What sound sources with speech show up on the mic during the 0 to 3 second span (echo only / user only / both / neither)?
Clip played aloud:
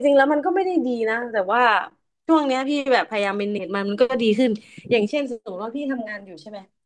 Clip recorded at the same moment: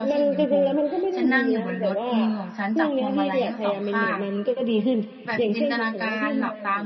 both